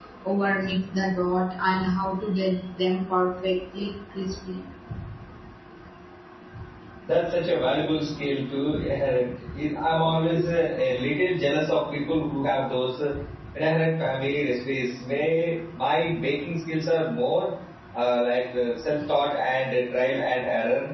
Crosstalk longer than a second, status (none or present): none